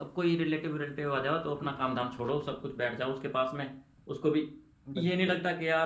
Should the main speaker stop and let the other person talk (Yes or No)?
No